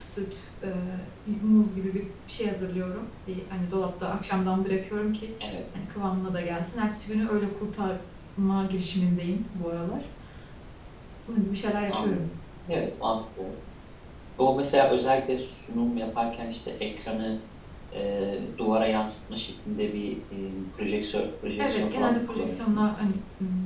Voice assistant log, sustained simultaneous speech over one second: present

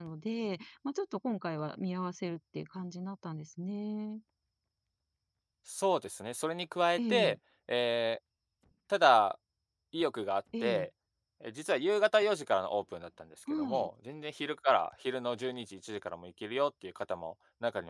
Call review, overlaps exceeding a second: none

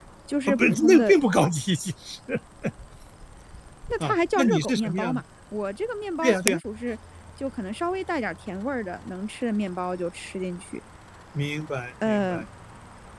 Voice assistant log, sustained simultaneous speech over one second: present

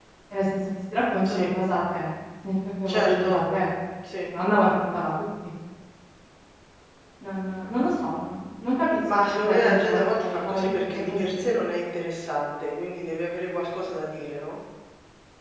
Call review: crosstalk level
present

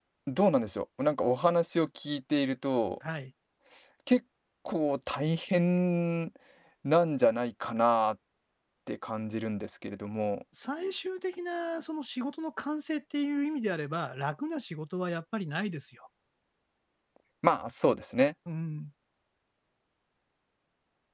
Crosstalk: none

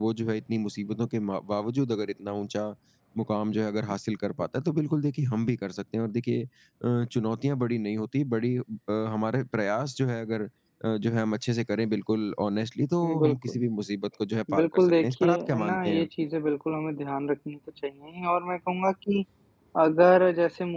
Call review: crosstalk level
present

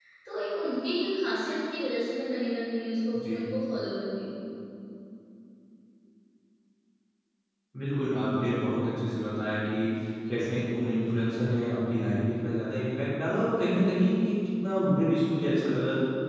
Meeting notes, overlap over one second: none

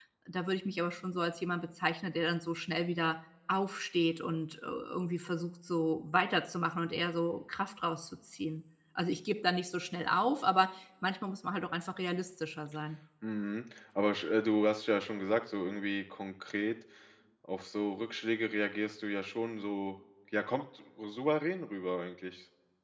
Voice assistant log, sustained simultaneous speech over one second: none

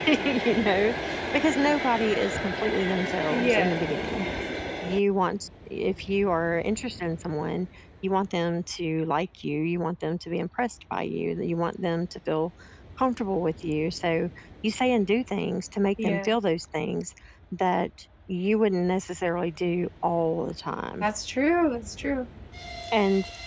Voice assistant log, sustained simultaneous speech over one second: none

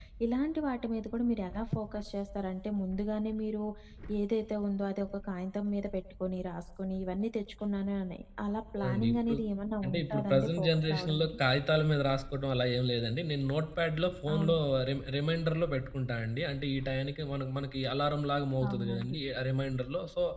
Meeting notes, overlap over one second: present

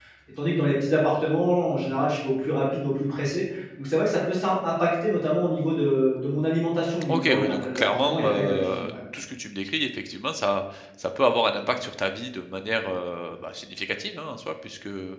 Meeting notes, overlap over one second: present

